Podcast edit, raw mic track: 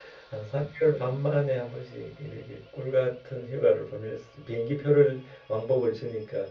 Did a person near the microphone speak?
Yes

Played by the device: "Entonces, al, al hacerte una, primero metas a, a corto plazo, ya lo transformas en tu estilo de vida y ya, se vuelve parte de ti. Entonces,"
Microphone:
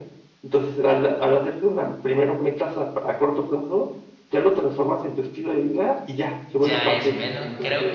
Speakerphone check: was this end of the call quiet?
No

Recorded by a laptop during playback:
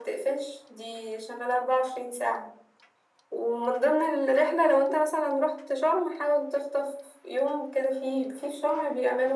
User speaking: No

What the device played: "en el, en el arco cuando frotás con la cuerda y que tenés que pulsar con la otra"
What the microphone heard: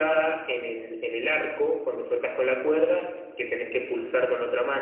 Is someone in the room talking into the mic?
No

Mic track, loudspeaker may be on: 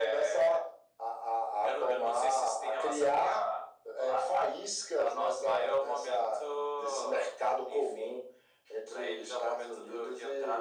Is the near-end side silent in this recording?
Yes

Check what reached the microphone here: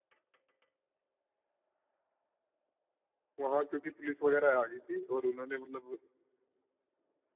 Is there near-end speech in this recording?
Yes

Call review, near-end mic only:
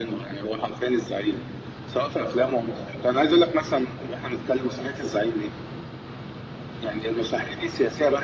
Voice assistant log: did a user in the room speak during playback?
No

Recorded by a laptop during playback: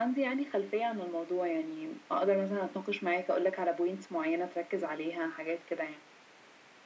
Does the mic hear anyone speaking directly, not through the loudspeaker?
No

